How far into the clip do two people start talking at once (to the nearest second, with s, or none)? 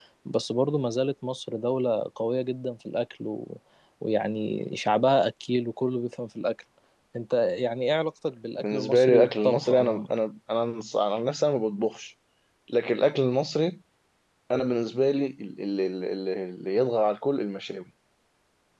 9 s